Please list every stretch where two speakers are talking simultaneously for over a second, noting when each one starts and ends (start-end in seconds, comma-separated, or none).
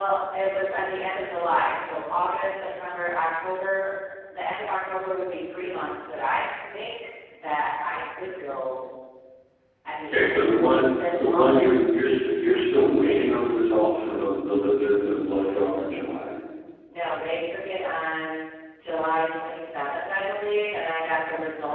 none